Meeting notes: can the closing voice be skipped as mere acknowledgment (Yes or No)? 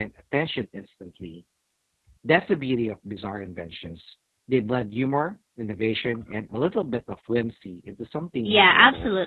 No